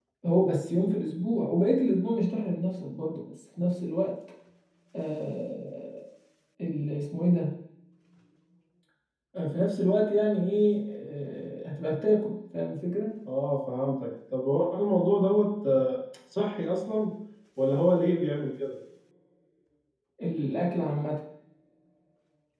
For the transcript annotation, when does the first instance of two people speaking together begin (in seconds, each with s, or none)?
none